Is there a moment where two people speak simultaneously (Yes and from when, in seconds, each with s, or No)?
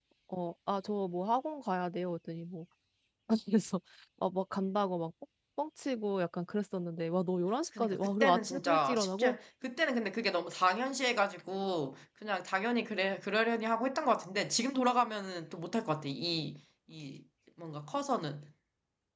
Yes, from 7.8 s